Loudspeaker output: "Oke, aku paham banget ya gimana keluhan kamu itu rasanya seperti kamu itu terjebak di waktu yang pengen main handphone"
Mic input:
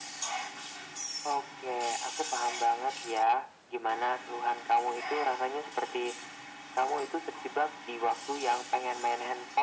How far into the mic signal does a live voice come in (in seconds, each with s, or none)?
none